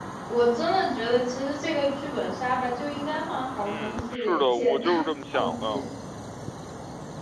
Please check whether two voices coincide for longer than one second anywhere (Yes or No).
Yes